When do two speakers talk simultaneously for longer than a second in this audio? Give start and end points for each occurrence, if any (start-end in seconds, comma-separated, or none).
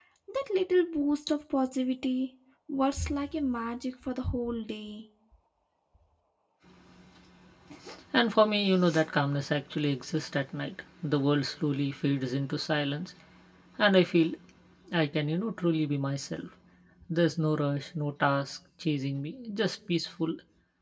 none